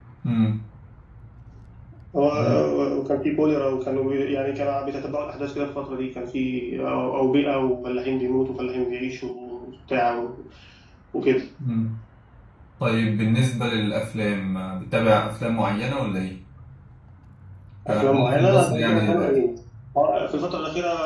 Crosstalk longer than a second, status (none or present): present